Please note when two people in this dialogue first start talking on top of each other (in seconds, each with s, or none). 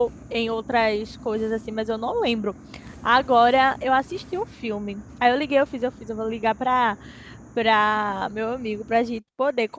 none